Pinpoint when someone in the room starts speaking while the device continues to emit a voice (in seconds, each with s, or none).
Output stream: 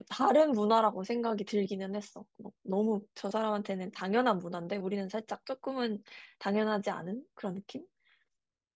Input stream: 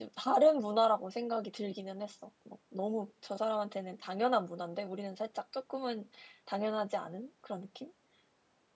none